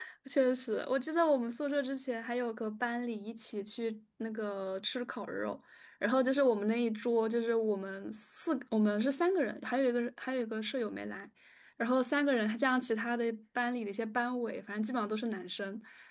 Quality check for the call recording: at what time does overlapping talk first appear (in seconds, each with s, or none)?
none